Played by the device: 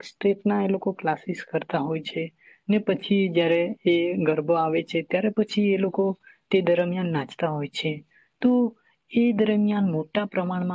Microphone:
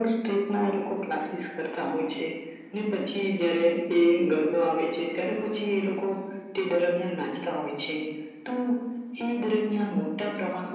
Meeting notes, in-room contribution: none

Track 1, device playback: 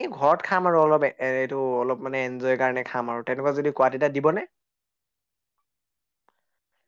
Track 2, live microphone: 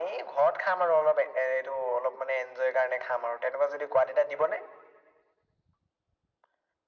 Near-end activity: none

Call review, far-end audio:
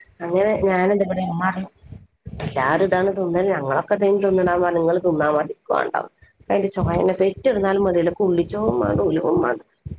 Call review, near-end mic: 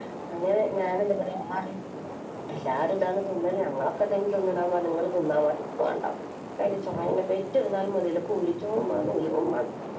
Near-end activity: none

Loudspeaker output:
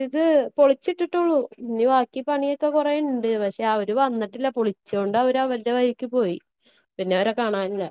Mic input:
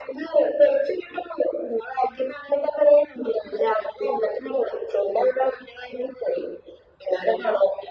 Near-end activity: none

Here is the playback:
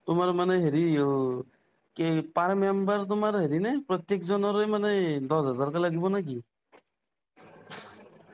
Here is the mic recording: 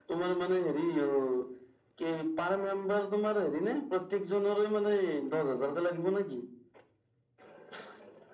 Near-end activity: none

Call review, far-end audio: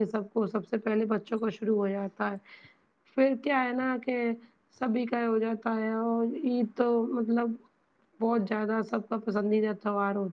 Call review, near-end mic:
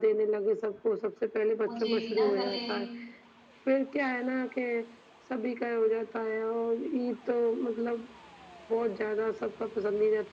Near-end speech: present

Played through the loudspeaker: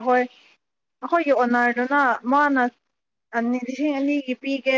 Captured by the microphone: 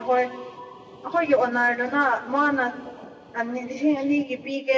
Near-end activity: none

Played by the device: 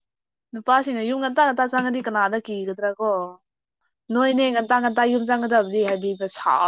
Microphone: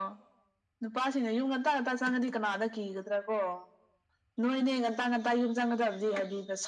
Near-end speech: none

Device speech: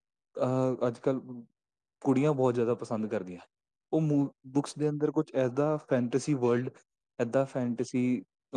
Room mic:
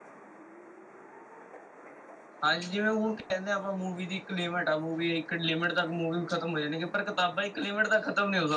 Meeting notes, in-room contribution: present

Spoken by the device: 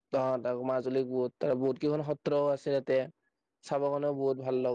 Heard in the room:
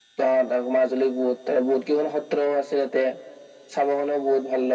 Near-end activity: none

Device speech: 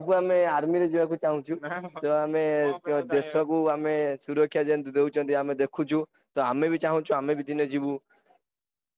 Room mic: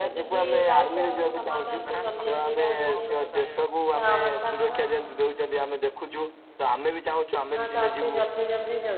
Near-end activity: present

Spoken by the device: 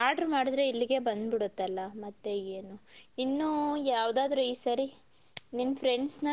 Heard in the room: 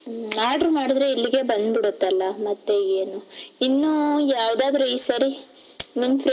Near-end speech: none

